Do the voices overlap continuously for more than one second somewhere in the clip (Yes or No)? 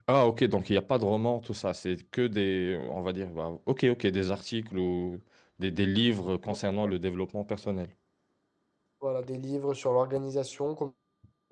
No